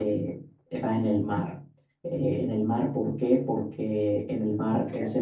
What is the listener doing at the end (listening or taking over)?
listening